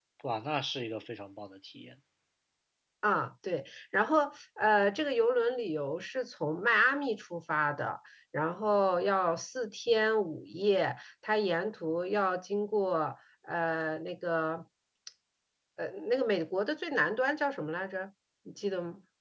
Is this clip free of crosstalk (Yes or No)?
Yes